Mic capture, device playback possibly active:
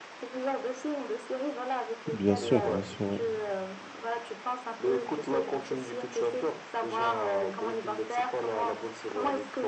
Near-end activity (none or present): present